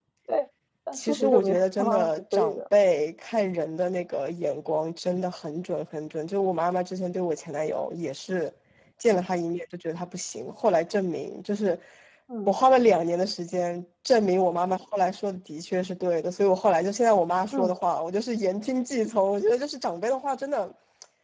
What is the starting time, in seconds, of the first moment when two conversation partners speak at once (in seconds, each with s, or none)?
0.9 s